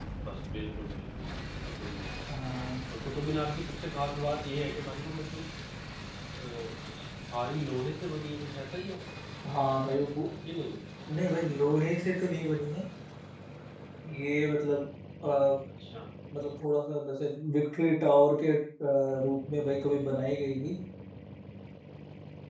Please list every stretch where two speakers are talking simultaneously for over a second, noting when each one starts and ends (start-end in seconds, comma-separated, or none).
none